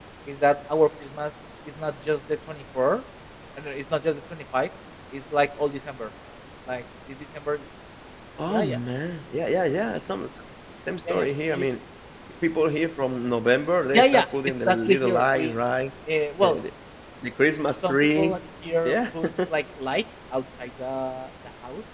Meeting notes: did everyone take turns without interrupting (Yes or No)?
No